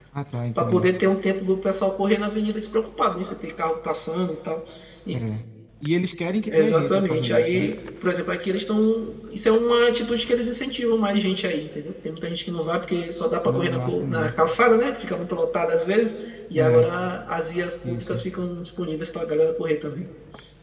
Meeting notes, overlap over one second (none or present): present